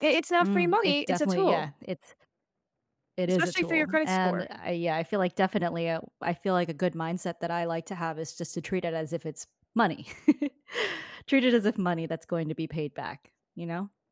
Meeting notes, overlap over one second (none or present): present